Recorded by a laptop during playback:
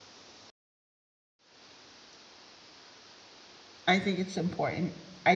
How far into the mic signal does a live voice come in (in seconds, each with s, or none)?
3.8 s